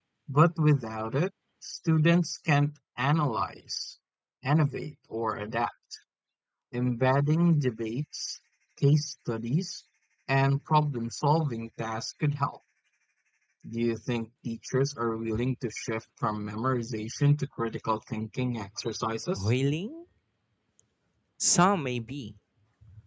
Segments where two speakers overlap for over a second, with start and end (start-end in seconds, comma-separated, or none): none